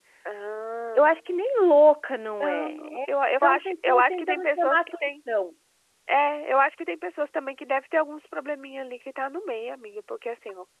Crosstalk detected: Yes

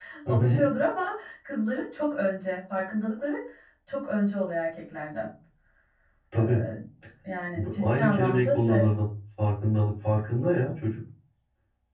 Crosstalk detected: Yes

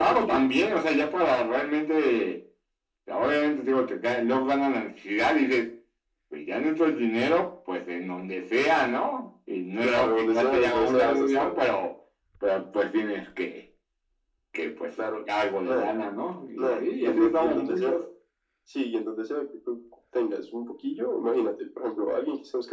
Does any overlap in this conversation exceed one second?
Yes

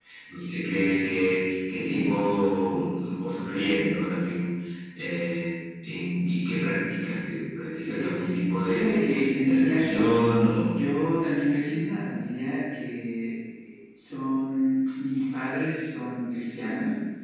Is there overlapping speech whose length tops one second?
Yes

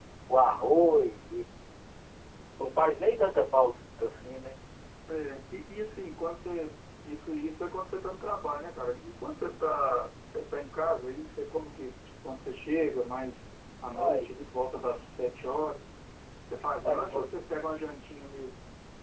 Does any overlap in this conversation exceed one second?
No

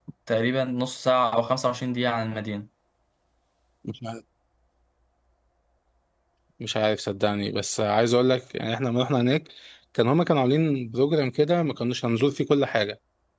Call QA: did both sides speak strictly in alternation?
Yes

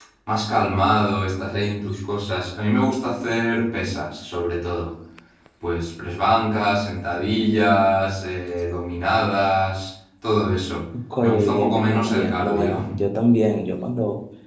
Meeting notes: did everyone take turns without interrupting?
No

